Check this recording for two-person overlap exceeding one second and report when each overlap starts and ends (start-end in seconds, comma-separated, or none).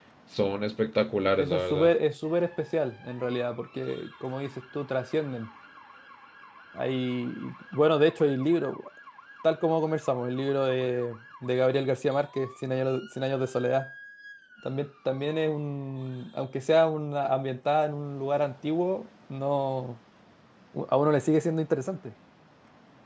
none